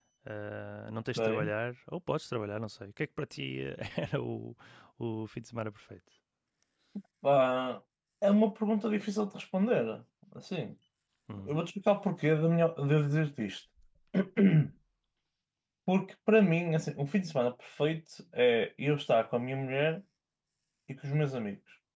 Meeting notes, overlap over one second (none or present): none